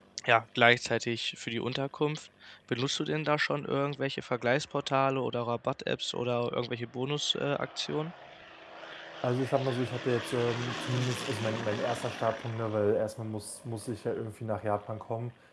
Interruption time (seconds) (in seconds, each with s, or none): none